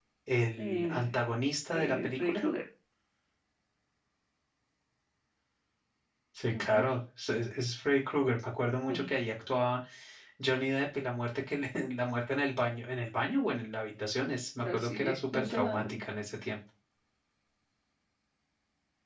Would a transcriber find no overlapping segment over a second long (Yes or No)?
No